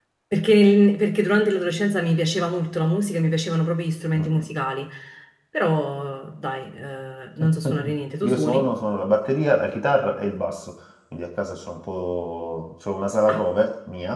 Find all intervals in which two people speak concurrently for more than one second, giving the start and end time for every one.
none

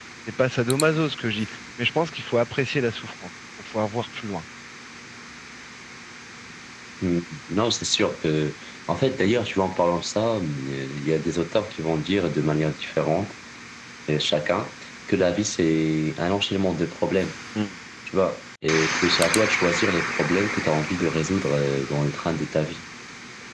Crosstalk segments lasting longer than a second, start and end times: none

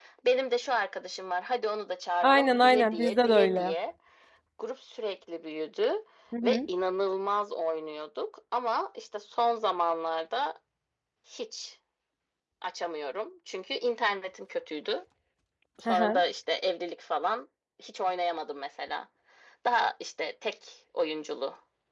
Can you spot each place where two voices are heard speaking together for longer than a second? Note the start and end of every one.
2.2-3.7

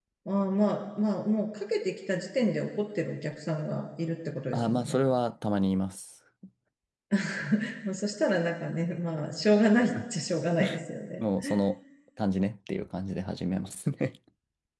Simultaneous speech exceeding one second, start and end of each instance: none

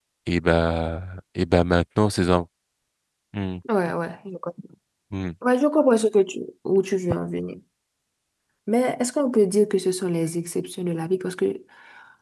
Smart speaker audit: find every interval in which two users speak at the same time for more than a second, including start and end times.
none

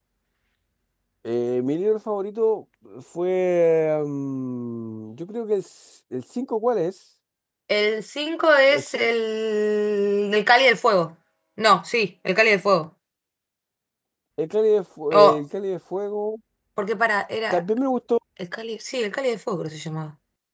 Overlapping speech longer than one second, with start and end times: none

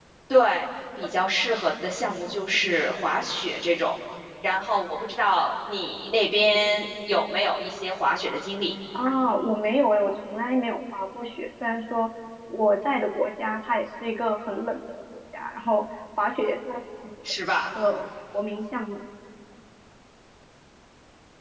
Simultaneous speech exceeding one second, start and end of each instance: none

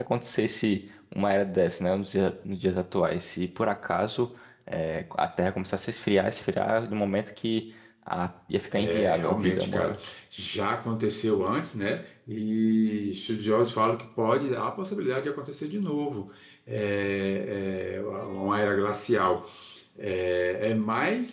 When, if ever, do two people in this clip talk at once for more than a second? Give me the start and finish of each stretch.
8.7-10.0

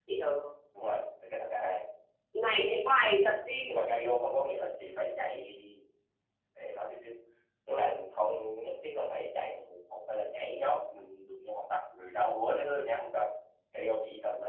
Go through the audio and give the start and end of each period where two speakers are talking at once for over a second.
none

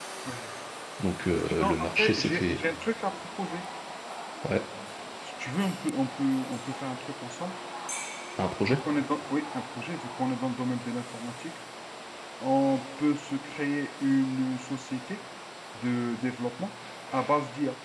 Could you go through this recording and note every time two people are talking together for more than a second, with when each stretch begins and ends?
1.3-2.6

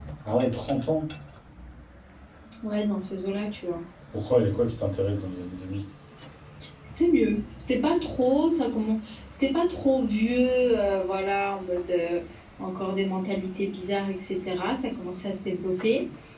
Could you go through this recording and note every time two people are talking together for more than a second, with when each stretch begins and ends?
none

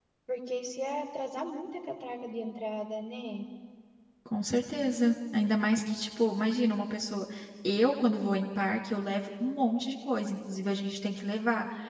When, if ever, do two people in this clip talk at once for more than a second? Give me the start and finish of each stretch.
none

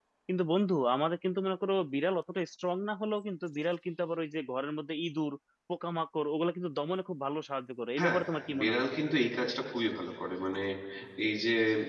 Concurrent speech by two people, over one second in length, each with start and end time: none

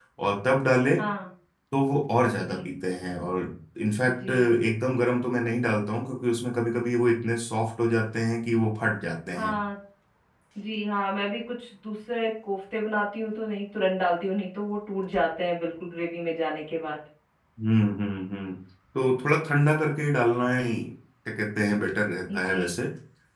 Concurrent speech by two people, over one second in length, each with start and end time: none

